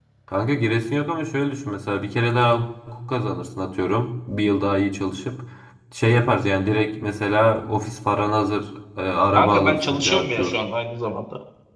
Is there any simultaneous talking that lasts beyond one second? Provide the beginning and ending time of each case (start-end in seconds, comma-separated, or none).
9.3-10.6